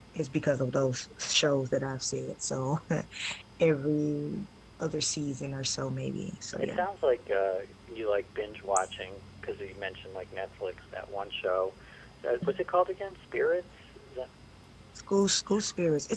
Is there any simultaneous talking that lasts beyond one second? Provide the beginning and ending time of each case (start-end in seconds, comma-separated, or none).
none